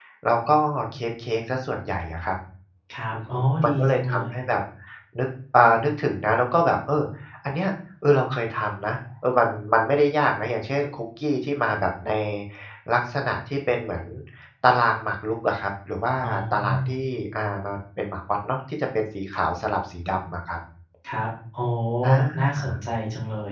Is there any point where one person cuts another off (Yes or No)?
Yes